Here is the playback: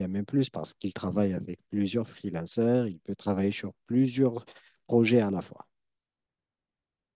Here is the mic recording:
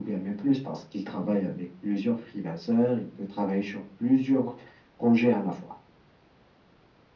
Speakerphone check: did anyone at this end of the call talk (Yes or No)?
No